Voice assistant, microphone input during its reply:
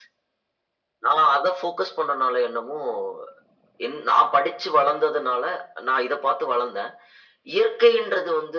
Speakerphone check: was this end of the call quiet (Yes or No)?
Yes